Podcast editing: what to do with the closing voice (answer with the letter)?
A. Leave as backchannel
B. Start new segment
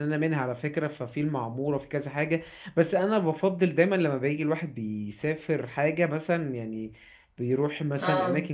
A